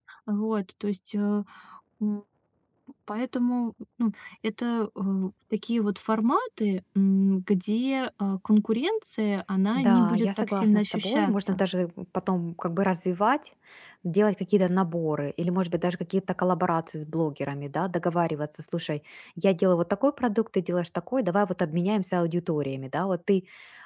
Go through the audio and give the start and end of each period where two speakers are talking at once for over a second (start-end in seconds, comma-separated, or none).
9.7-11.6